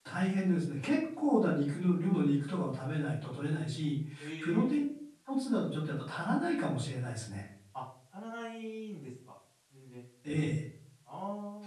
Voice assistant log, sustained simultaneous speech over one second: none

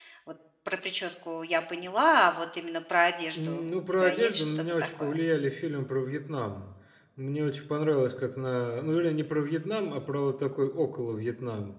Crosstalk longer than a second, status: present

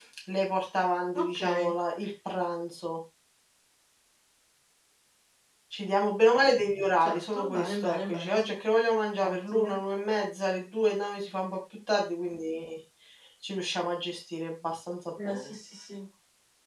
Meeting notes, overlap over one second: present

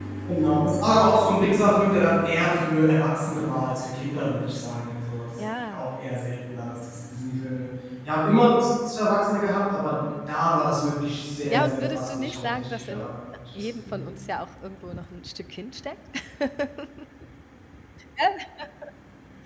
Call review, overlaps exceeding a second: present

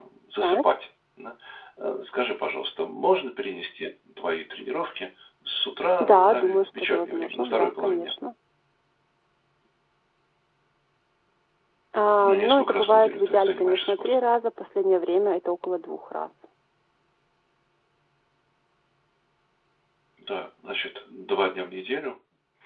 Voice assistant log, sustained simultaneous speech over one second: present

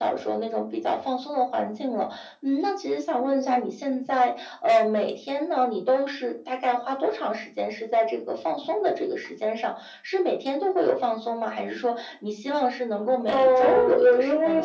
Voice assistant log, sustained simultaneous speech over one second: present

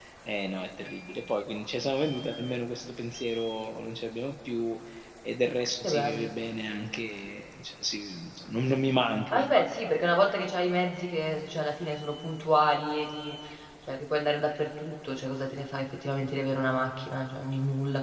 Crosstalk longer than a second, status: none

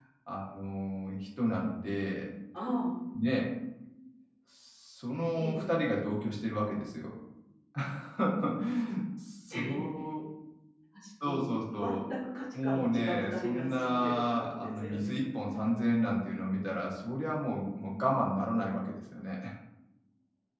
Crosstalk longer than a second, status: present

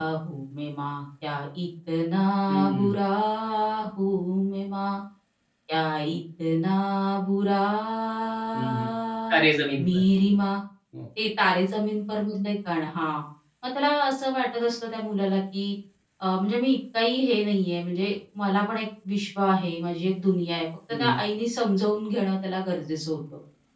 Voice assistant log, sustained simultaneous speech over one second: none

